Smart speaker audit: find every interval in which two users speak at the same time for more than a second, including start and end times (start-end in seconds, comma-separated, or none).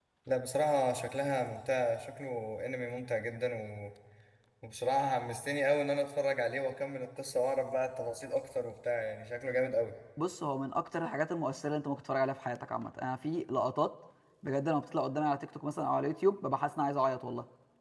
none